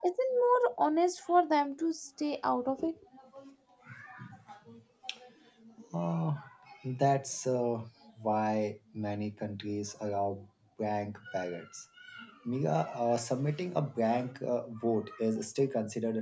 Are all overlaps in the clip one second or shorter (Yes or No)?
Yes